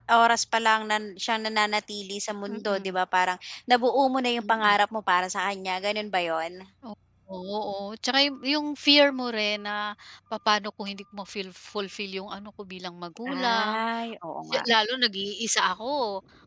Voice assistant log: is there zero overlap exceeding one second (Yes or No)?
Yes